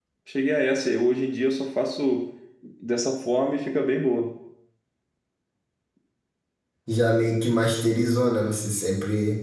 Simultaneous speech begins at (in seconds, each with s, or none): none